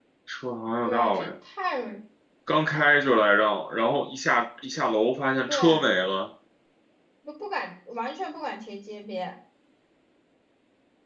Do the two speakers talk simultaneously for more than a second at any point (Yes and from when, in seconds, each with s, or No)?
No